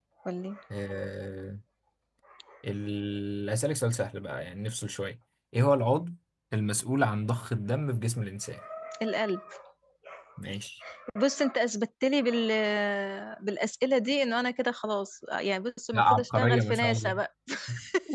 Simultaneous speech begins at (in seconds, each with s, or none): 15.9 s